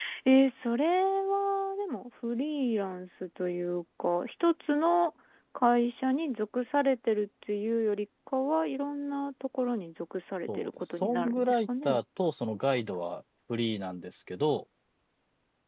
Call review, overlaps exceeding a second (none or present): present